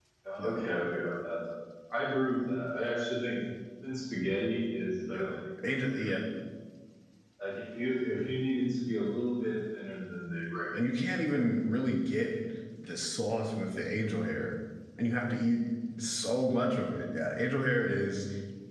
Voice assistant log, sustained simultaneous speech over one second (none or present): none